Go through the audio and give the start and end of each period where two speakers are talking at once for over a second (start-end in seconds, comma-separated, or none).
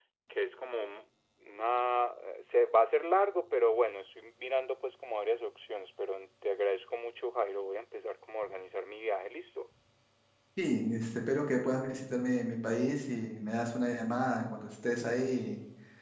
none